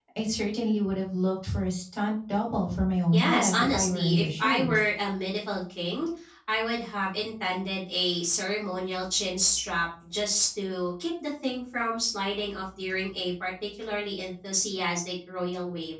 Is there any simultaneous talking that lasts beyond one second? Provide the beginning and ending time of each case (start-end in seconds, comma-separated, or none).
3.1-4.8